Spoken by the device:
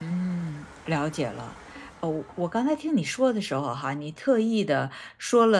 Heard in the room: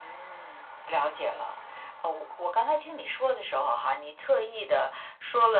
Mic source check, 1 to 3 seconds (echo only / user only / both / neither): echo only